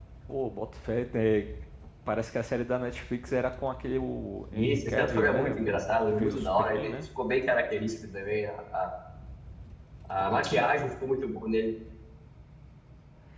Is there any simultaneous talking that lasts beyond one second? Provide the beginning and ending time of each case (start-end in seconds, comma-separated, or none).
4.5-7.0